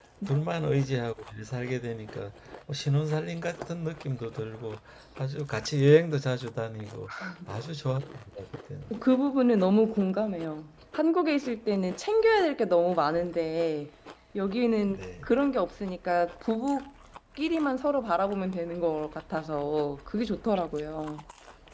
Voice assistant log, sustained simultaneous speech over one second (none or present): none